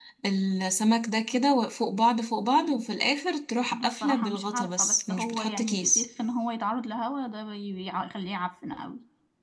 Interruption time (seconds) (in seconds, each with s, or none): 3.7 s